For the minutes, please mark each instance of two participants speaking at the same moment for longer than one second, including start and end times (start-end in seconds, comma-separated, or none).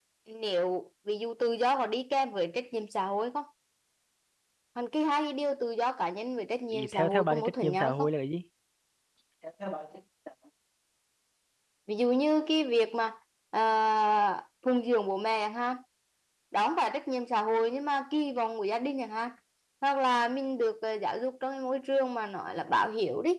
6.7-8.1